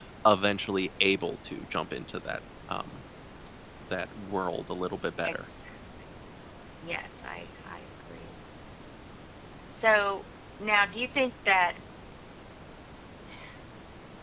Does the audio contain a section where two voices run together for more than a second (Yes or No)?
No